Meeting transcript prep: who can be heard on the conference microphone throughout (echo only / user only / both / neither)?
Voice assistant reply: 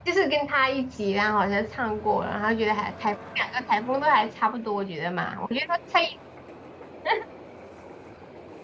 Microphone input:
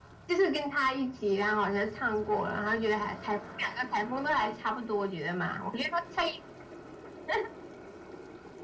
echo only